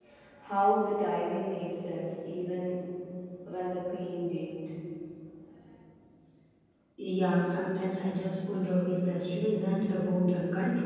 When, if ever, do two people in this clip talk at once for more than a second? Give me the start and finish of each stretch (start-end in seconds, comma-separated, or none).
none